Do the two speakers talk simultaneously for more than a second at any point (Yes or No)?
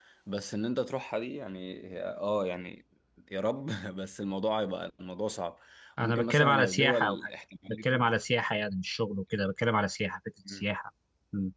Yes